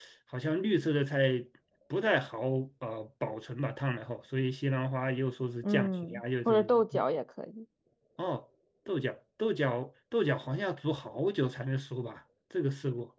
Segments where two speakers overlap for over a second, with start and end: 5.6-7.0

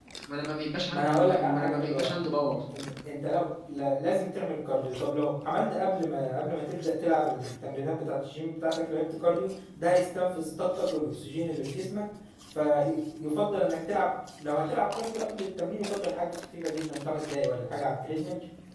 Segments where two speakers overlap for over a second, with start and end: 0.9-2.1

